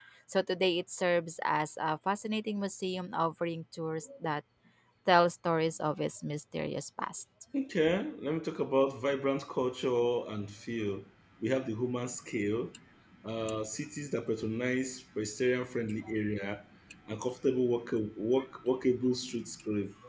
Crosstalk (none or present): none